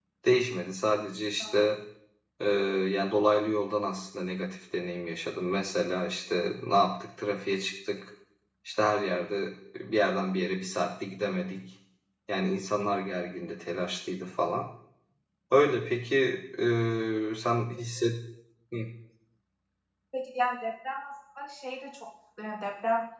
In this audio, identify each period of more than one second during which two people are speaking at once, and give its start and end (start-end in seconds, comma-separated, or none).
none